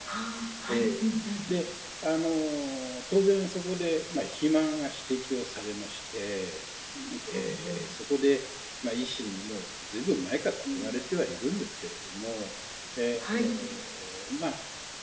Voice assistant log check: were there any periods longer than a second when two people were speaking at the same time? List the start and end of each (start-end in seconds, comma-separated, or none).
none